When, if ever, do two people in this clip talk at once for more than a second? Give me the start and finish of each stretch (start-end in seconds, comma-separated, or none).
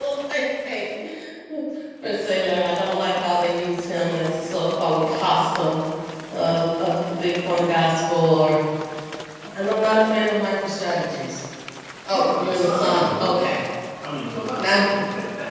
12.1-13.6